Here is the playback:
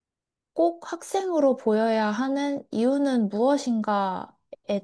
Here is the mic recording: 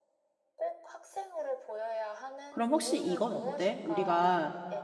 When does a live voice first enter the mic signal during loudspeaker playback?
2.5 s

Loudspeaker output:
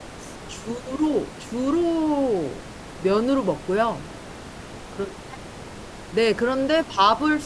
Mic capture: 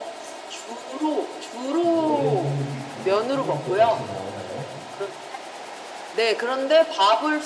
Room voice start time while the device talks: 1.8 s

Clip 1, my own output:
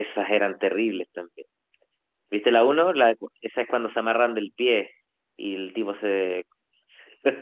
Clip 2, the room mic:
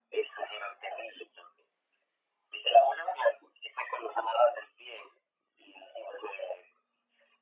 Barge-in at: none

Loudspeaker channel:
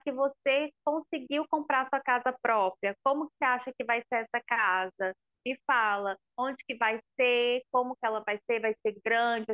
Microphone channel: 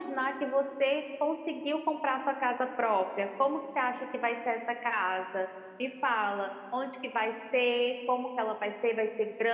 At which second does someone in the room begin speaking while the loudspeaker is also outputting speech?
none

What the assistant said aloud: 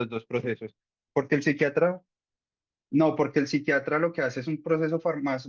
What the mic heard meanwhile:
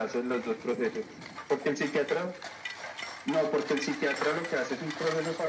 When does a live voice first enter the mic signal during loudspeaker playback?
none

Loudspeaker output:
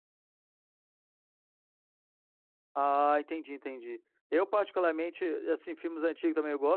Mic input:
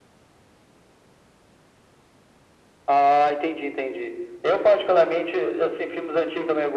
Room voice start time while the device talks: none

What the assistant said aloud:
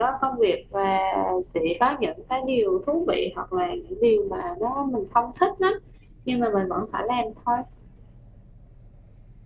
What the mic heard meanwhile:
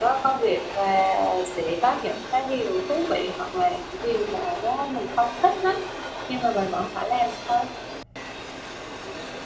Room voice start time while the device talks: none

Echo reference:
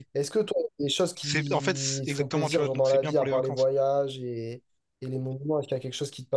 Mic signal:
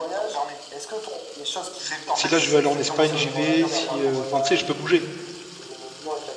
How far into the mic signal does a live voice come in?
2.1 s

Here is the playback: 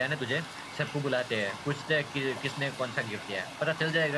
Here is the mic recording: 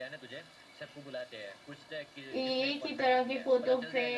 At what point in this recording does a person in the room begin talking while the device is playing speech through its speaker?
2.3 s

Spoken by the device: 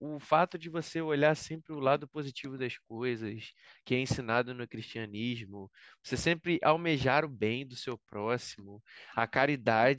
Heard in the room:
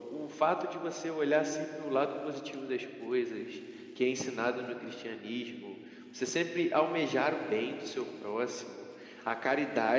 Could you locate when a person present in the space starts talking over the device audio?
none

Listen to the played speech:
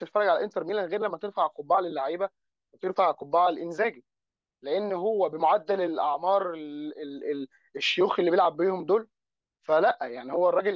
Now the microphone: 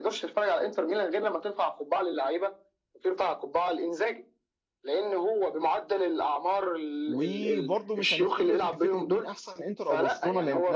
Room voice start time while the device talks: 7.1 s

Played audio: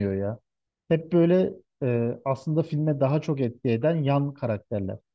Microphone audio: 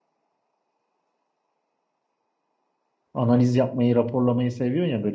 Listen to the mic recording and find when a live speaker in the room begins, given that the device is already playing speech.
3.1 s

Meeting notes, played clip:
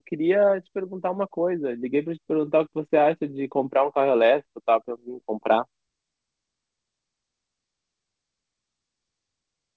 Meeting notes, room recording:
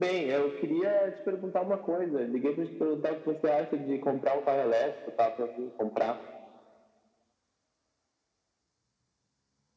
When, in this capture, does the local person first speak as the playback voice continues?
none

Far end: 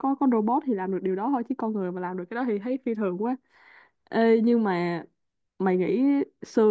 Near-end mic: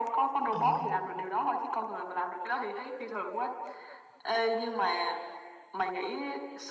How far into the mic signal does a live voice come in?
0.5 s

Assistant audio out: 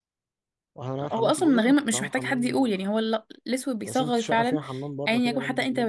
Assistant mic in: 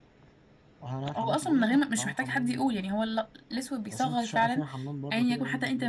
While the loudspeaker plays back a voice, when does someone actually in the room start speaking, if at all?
none

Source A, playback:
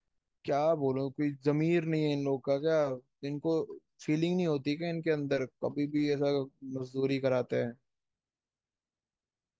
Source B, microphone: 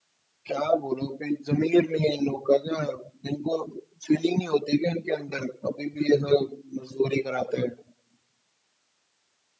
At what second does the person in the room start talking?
none

